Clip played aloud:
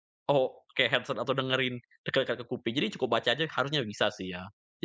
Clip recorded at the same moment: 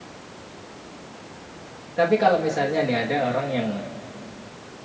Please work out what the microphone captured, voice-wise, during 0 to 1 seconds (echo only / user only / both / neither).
neither